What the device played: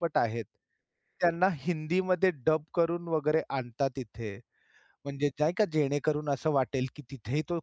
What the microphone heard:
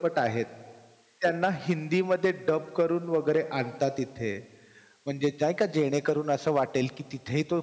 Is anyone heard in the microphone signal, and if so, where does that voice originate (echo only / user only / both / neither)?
echo only